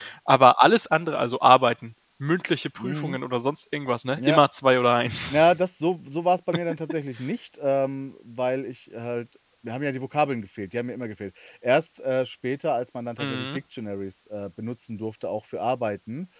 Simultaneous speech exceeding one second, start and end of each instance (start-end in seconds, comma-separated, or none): none